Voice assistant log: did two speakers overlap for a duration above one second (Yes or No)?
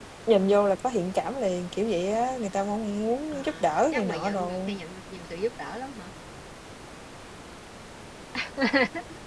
Yes